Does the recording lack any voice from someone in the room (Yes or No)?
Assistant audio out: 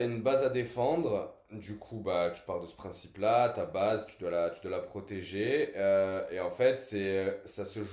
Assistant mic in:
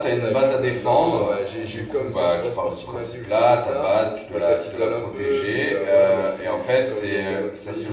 No